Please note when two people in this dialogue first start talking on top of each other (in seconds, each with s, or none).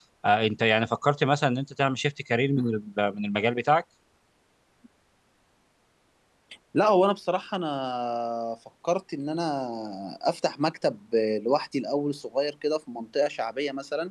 none